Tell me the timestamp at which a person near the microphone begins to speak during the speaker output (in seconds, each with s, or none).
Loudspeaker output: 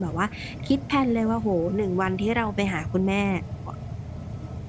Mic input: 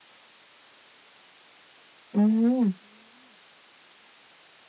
2.1 s